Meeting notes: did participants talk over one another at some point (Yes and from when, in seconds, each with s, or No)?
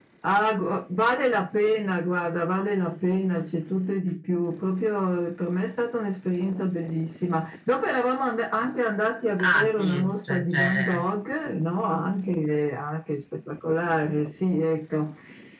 Yes, from 9.4 s